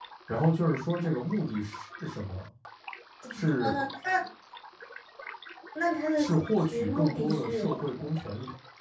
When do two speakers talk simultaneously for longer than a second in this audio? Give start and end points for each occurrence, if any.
6.2-7.7

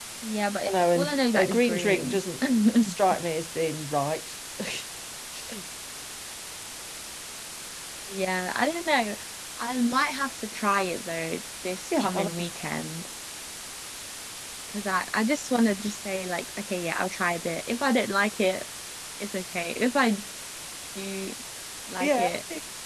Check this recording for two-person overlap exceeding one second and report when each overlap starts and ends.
0.7-2.2

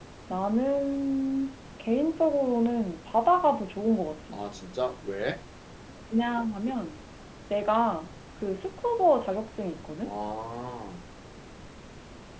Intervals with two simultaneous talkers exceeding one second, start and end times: none

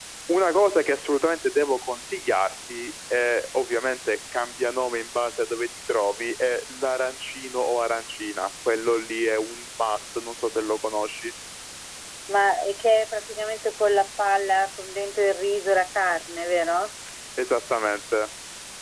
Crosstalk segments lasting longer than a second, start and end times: none

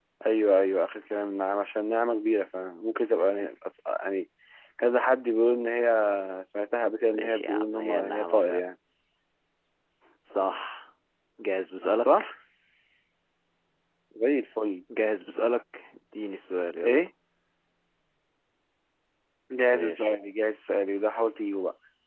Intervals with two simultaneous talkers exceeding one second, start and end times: 7.1-8.6

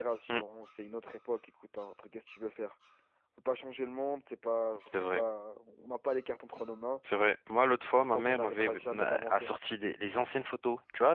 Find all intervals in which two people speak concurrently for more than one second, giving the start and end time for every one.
7.8-9.5

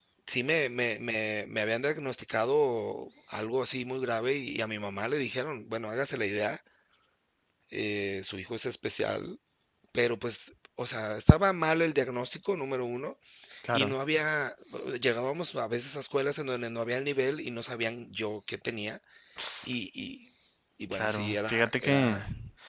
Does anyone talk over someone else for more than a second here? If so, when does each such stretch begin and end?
20.9-22.2

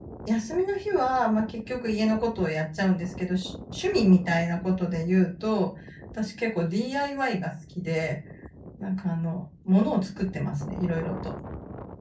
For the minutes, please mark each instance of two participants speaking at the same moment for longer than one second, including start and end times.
none

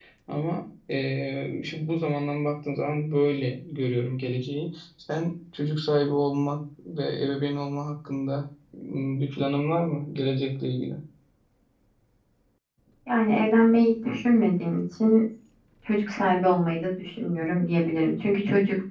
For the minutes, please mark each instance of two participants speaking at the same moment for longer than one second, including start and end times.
none

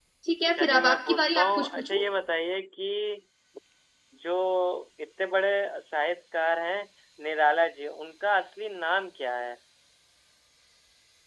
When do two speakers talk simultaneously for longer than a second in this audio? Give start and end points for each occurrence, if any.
0.6-2.0

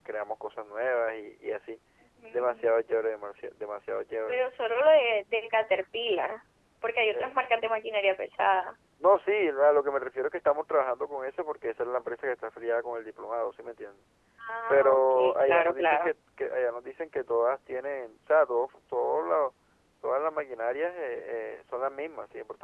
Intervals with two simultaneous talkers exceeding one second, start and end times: 14.7-16.1

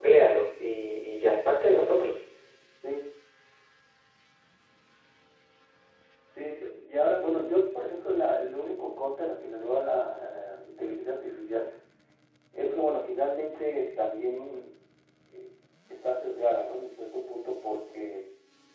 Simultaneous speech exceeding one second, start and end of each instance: none

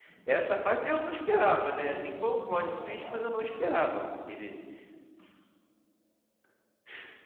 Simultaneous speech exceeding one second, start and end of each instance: 1.7-3.5

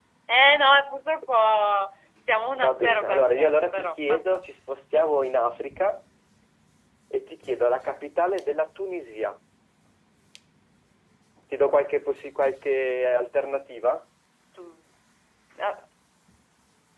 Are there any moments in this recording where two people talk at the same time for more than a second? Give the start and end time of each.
2.6-4.2

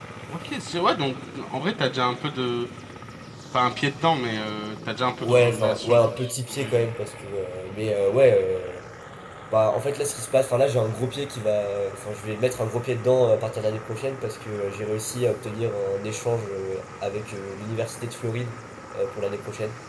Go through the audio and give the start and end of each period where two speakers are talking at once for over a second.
5.2-6.9

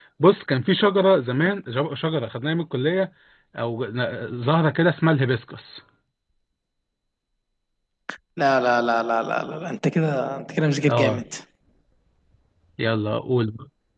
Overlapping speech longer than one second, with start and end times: none

